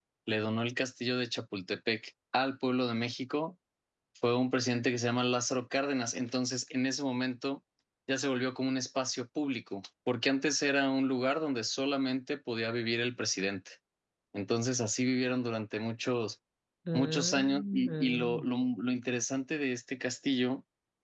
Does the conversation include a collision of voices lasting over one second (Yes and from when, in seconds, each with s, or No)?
Yes, from 16.9 s